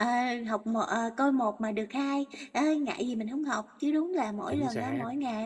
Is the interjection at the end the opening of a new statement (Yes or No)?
No